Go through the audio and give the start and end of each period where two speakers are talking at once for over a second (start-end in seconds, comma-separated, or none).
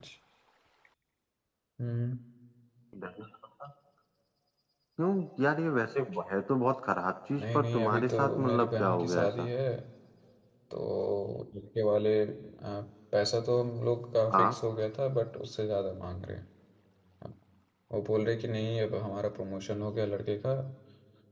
7.4-9.5